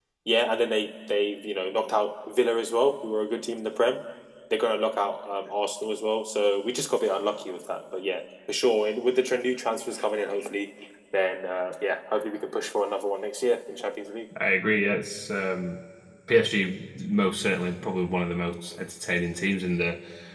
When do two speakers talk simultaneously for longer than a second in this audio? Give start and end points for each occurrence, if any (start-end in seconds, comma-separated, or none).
none